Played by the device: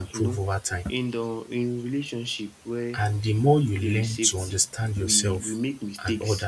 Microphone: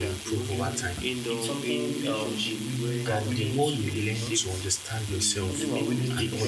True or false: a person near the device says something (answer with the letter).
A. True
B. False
A